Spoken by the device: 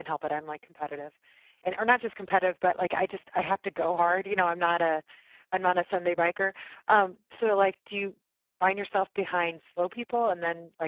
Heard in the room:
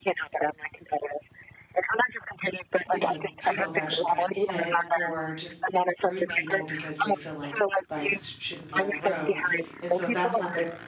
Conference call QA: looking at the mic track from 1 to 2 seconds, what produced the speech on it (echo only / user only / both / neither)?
echo only